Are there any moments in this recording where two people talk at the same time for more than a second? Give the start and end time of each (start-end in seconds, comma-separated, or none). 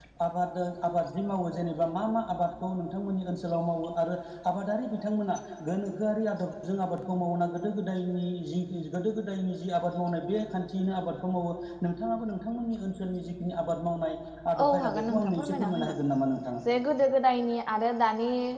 14.6-15.9